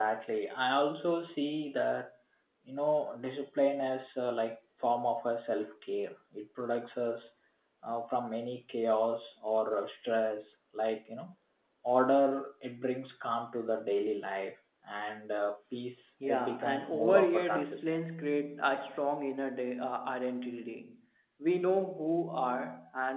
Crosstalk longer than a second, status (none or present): present